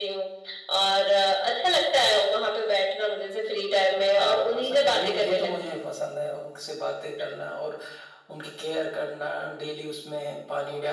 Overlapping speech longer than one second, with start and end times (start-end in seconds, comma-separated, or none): 4.1-5.8